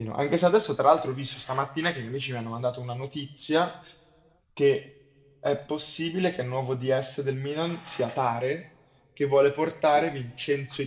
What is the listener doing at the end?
listening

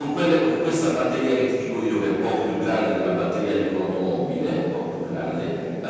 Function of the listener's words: listening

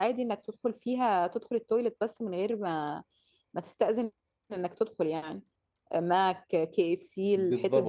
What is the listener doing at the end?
taking over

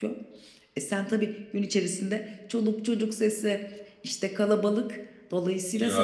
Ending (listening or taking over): taking over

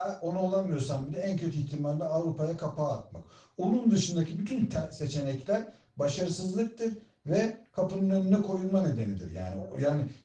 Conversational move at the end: listening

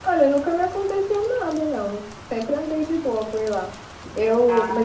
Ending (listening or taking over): listening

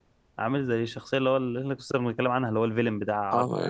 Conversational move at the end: taking over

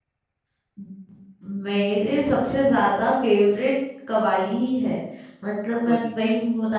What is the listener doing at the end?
listening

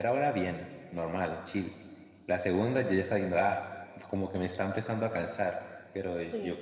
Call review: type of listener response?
listening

